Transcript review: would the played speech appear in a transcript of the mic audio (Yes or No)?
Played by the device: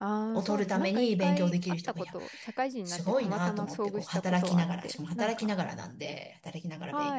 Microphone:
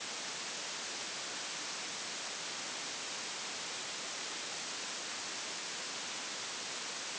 No